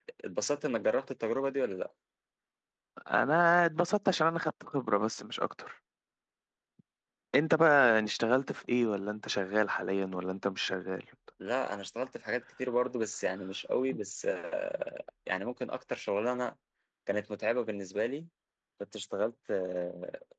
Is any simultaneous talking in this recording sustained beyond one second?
No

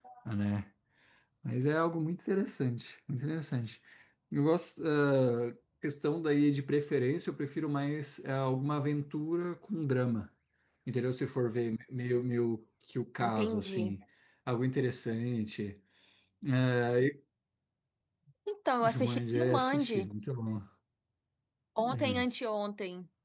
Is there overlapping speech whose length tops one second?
Yes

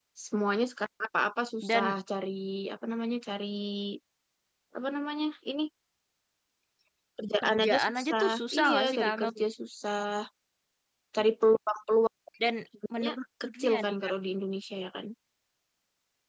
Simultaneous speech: Yes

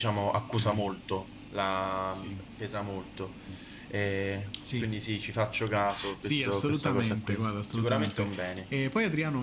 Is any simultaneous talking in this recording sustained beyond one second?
Yes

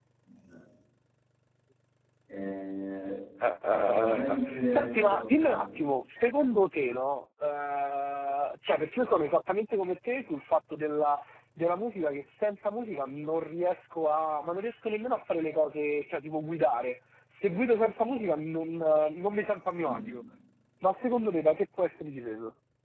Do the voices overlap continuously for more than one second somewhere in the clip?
Yes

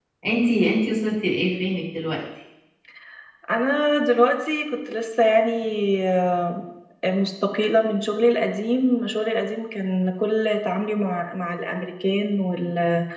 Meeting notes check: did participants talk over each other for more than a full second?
No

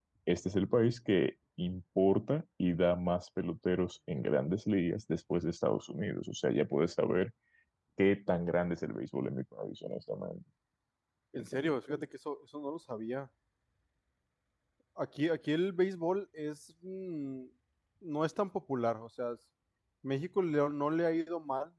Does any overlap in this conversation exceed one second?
No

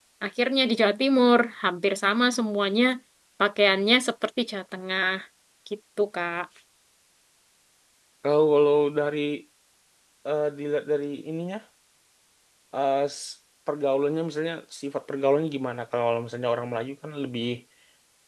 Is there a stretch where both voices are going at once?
No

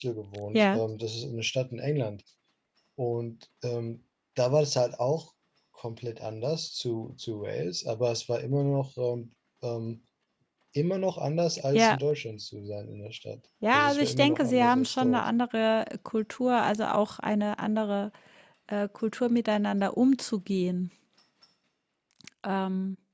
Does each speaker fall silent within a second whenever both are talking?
No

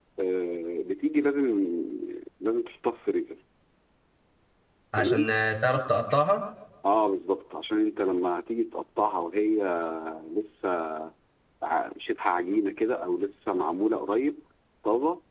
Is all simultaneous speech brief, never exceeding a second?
Yes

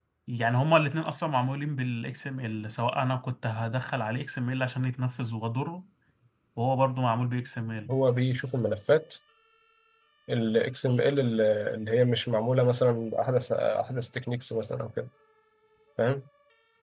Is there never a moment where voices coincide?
Yes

